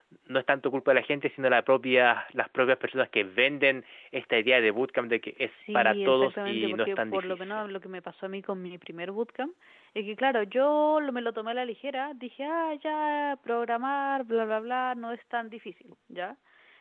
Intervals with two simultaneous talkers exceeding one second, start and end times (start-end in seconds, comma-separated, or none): 5.5-7.6